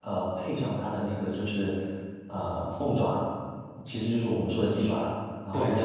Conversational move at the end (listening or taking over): listening